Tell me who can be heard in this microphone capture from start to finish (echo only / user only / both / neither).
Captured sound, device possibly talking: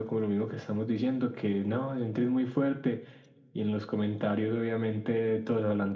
echo only